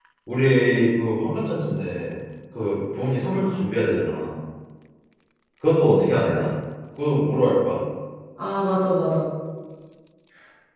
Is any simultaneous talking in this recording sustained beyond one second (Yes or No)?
No